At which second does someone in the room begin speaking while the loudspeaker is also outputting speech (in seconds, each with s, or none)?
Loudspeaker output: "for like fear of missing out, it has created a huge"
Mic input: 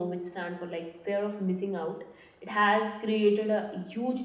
none